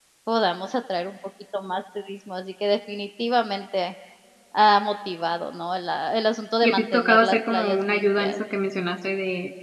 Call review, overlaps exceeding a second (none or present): present